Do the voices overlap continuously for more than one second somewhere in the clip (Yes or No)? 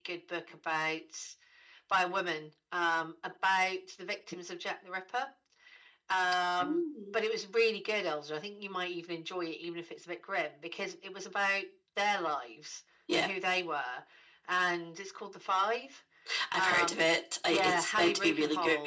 Yes